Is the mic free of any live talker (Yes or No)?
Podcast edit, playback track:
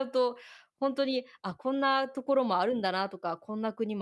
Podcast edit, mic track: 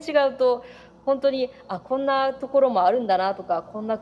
Yes